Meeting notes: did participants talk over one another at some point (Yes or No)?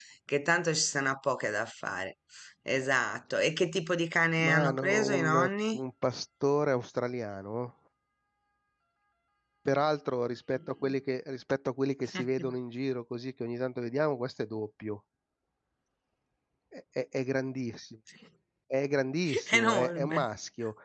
Yes